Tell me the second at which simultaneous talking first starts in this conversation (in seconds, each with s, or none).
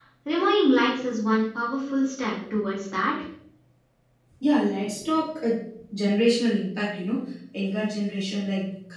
none